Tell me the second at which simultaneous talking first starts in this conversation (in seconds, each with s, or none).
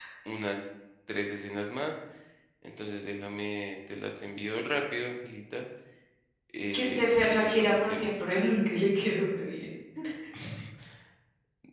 6.7 s